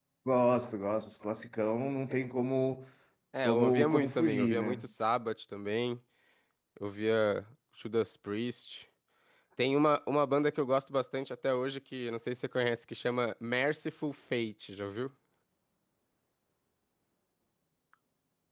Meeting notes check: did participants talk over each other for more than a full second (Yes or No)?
Yes